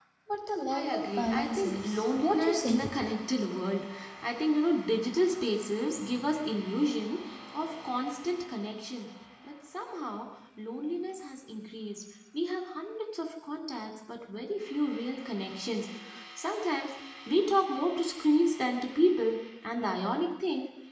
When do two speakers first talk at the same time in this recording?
0.7 s

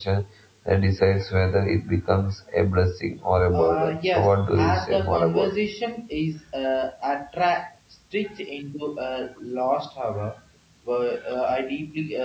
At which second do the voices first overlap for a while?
3.5 s

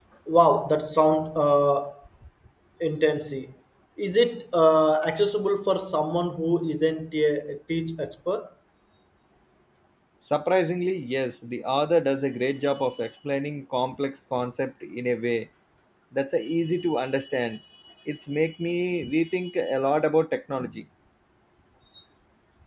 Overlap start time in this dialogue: none

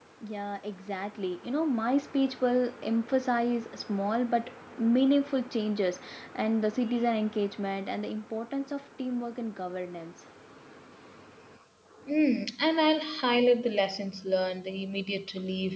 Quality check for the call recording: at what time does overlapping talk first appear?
none

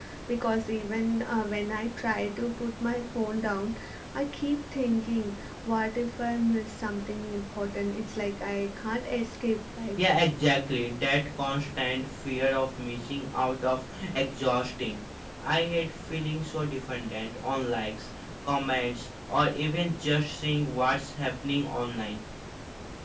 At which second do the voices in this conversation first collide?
none

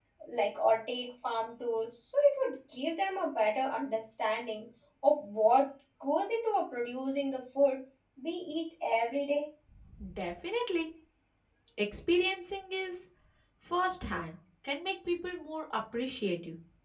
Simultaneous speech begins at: none

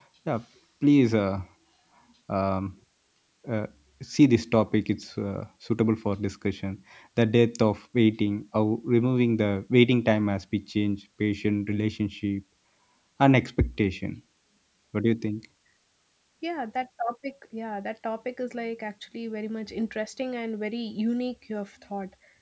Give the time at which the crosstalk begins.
none

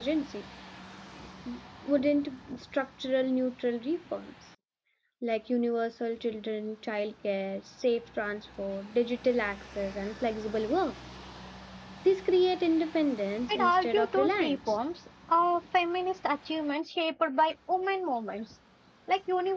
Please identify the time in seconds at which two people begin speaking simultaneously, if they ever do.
13.5 s

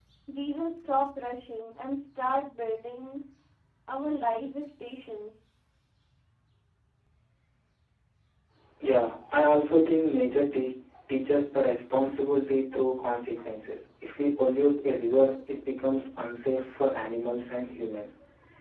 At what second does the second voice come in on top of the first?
none

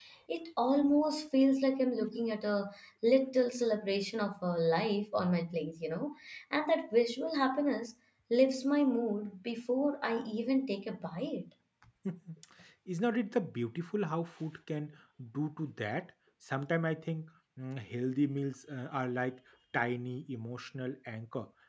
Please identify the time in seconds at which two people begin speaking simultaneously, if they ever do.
none

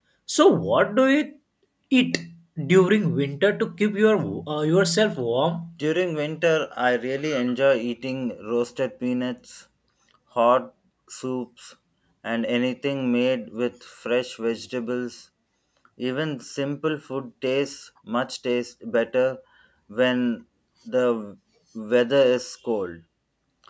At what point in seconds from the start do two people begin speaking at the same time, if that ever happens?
none

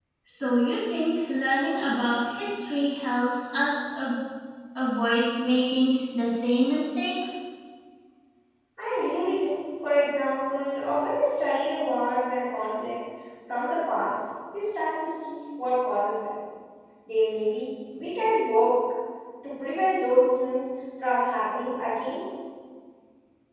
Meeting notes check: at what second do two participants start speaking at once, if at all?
none

